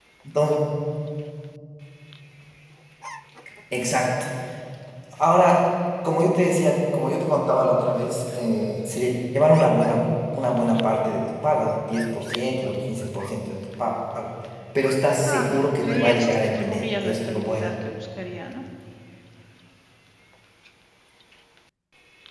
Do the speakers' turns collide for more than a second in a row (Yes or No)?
Yes